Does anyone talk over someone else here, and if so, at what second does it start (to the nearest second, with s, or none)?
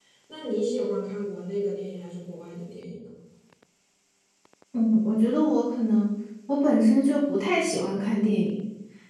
none